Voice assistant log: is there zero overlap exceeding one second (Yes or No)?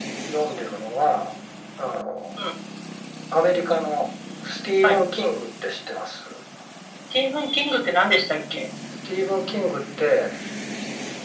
Yes